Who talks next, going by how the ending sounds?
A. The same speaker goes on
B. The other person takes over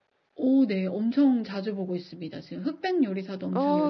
B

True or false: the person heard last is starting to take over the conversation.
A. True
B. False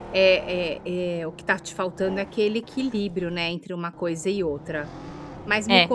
B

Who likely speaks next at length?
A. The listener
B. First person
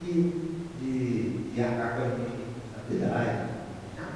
B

